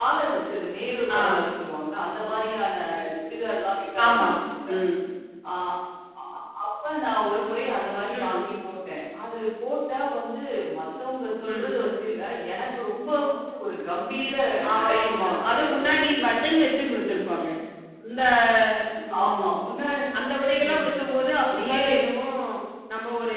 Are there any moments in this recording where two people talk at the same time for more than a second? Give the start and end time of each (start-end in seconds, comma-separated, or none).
14.8-16.2